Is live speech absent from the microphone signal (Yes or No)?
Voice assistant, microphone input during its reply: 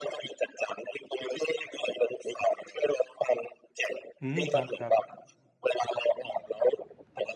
No